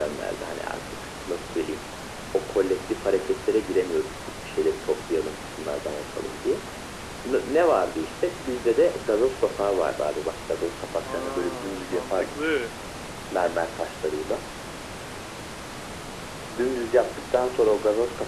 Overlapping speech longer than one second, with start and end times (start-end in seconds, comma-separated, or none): 11.1-12.4